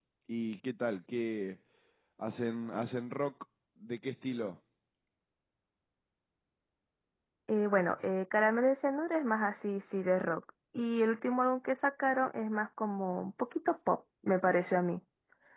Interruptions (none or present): none